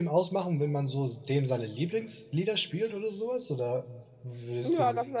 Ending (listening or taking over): taking over